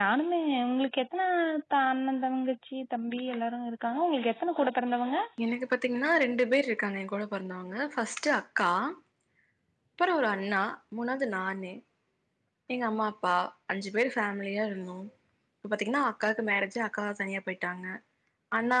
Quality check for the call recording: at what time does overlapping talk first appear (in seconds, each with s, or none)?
none